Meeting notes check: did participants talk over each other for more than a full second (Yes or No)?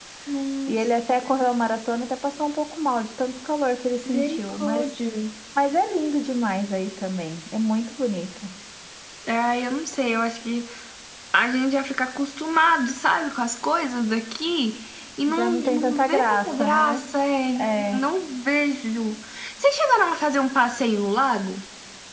Yes